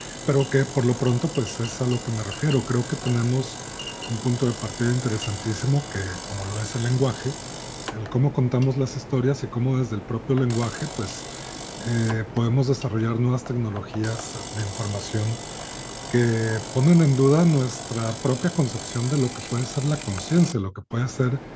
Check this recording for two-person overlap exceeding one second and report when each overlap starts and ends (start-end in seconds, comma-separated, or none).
none